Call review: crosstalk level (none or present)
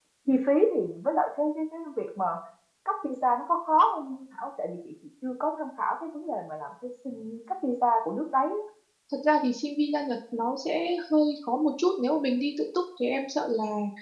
none